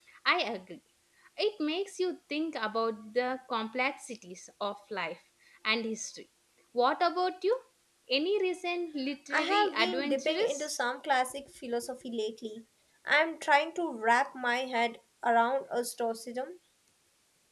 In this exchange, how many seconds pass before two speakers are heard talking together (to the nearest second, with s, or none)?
9 s